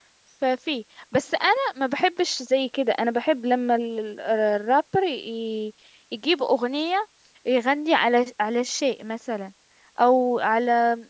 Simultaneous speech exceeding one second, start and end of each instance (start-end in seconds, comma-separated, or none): none